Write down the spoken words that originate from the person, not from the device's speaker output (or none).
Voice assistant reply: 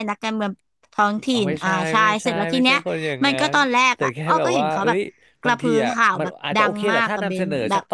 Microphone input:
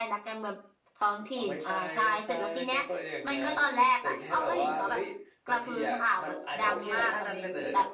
none